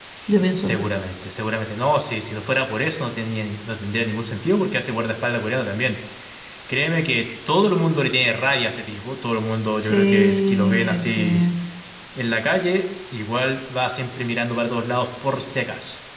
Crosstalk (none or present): present